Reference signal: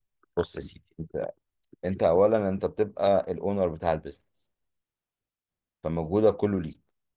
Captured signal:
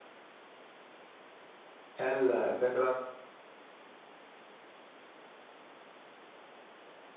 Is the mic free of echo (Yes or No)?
Yes